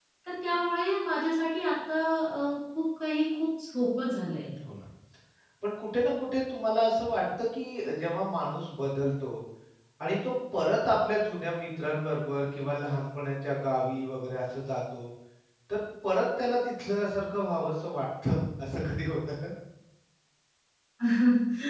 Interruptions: none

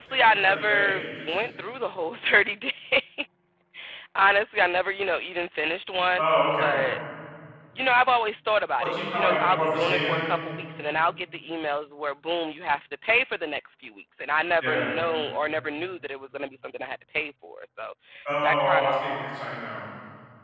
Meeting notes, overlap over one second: present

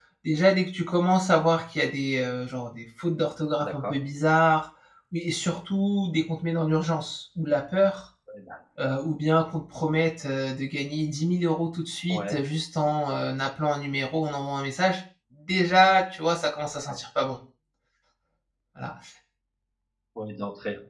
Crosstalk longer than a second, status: none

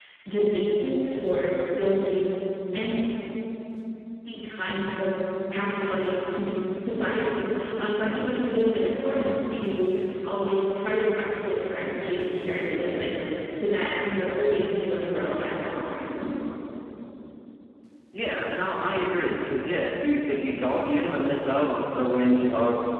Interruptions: none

